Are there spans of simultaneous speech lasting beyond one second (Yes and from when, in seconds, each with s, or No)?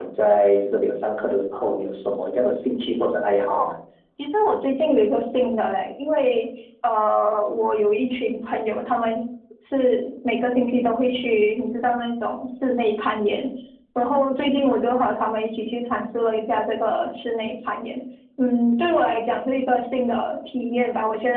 No